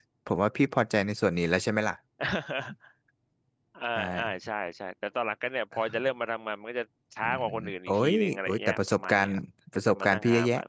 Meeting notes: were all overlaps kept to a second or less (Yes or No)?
No